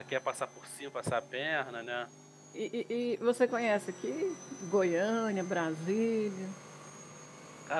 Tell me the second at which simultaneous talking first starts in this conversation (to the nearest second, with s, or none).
none